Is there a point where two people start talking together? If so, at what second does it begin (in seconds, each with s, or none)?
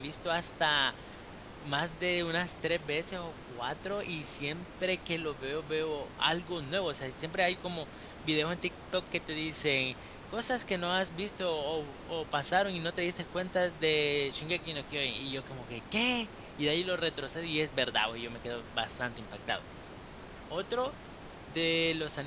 none